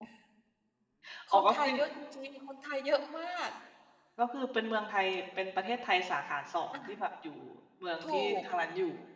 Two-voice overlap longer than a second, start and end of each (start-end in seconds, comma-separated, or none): none